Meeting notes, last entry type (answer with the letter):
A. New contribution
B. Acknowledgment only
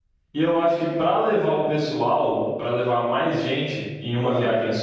B